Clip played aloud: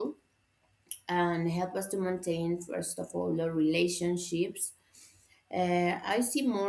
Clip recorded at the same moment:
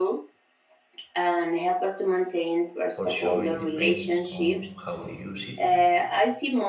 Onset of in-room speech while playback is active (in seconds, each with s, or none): 2.9 s